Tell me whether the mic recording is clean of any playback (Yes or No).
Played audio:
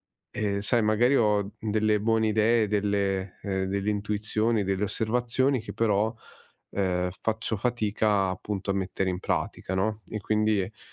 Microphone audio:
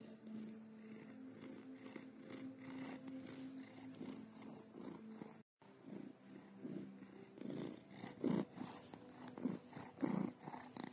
Yes